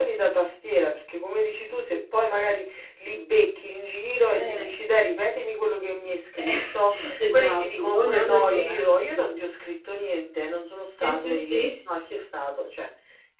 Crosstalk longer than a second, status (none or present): present